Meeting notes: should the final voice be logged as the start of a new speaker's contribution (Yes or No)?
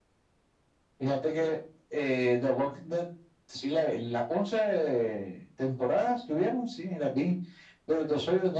No